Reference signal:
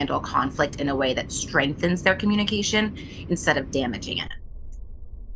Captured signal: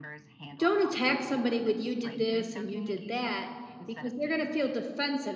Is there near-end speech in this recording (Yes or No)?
Yes